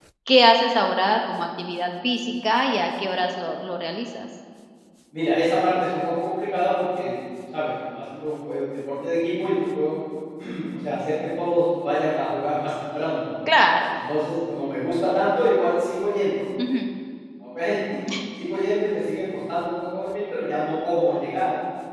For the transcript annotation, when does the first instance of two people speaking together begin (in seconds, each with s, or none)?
none